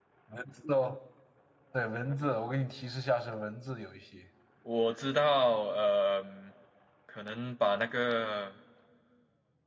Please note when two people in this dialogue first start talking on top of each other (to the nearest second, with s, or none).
none